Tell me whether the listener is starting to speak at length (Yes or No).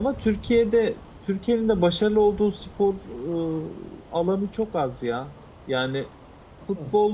No